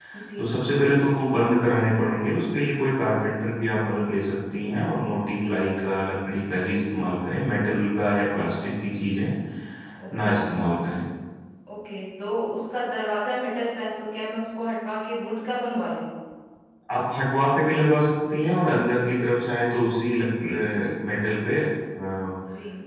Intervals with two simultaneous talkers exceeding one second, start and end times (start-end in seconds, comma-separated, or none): none